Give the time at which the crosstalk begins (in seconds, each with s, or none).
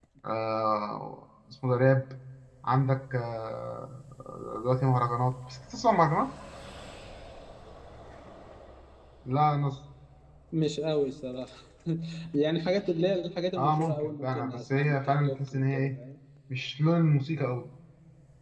13.6 s